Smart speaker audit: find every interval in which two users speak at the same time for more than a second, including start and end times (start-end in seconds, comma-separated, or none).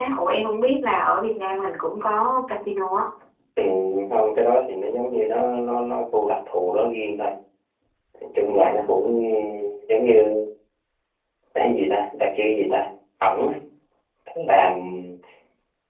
none